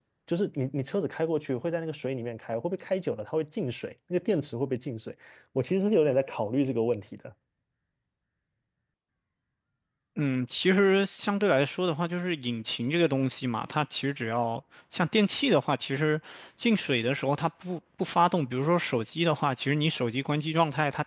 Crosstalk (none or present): none